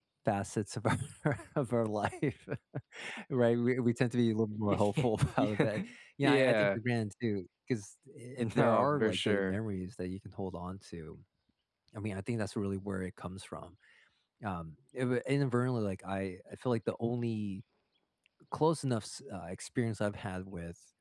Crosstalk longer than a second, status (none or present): present